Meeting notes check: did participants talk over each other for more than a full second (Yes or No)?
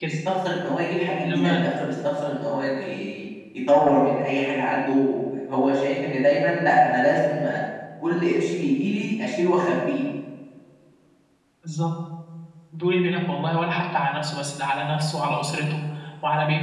No